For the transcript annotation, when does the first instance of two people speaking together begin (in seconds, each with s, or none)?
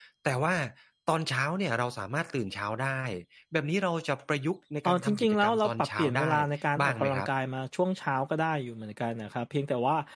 4.8 s